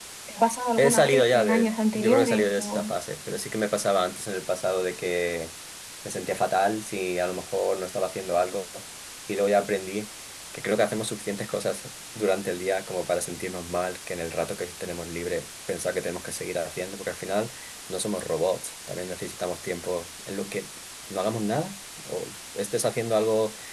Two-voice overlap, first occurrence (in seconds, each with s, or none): 0.8 s